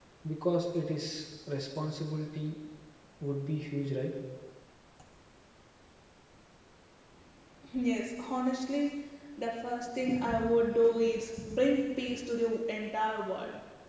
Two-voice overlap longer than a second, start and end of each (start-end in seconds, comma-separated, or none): none